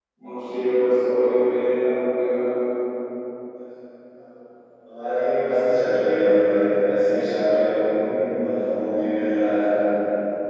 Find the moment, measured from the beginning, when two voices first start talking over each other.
none

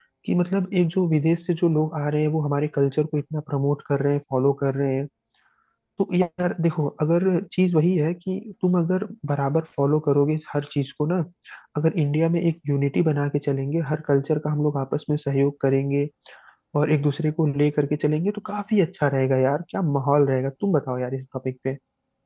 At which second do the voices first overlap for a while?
none

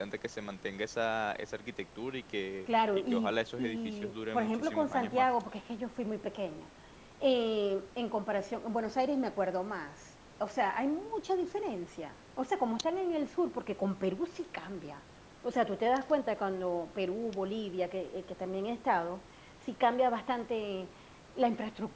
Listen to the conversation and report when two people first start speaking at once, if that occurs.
3 s

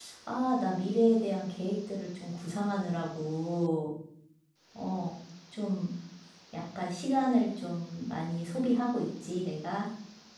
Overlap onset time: none

